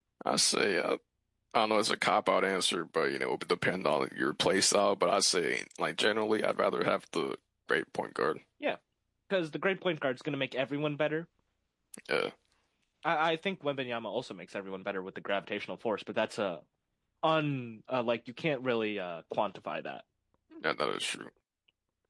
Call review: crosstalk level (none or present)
none